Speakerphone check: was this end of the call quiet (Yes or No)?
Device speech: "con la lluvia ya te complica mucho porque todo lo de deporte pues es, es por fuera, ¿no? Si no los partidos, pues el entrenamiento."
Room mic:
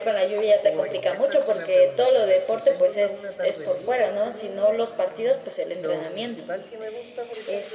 No